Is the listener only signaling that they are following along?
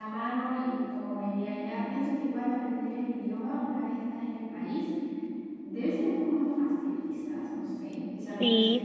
No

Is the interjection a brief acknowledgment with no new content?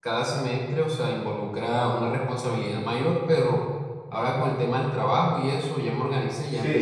No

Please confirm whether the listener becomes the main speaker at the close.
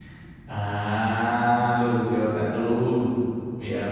No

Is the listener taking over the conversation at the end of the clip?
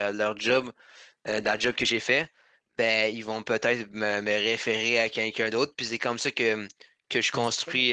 No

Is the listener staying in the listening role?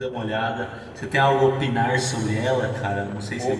No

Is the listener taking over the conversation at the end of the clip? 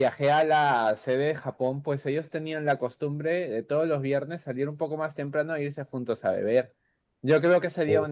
No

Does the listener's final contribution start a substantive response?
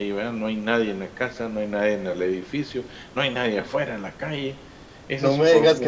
Yes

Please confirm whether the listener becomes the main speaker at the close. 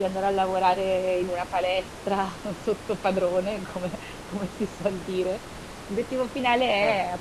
No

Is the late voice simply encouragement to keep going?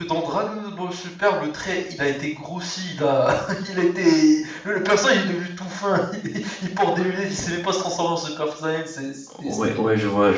No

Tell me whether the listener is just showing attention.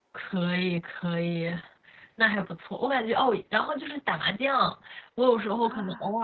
Yes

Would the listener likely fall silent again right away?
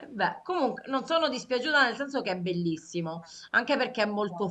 Yes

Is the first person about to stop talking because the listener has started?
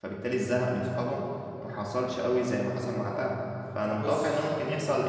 No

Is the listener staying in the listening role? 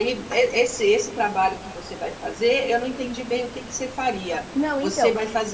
Yes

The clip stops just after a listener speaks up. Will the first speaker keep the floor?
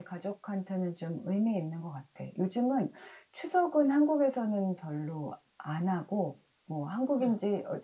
Yes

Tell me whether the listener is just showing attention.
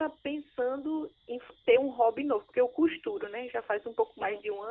Yes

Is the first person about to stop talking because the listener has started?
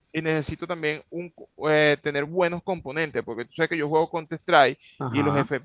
No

